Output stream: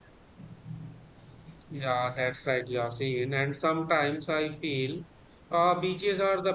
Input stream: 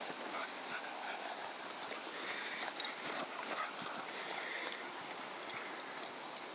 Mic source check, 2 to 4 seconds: neither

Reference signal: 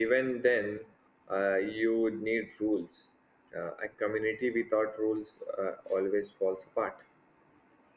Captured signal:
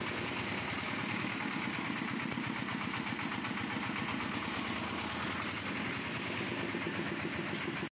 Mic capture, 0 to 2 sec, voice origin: neither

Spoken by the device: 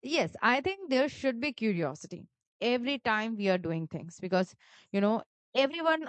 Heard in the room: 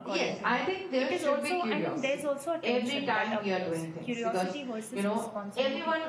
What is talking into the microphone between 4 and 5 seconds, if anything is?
both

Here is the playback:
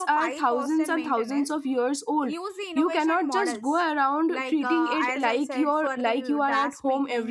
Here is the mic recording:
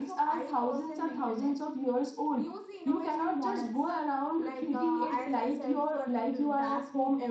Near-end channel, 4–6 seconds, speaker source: echo only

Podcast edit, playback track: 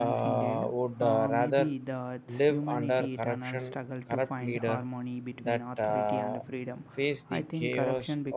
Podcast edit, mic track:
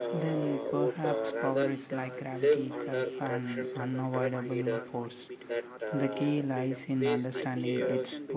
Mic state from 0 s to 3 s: both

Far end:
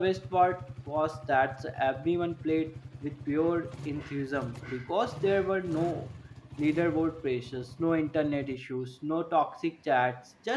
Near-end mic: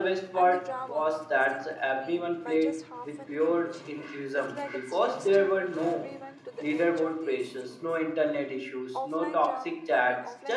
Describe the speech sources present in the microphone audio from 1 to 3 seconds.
both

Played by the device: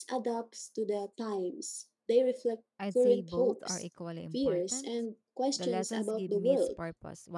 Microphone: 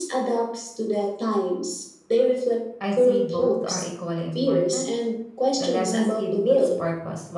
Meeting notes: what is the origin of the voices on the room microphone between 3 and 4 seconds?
echo only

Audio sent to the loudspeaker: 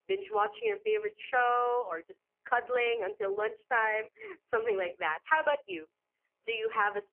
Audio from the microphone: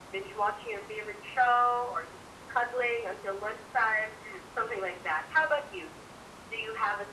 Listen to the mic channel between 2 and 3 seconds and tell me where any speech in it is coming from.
echo only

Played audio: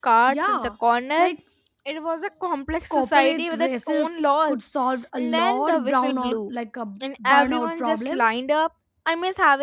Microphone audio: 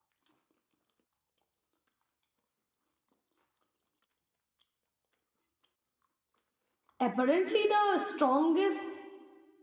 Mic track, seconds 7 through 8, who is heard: user only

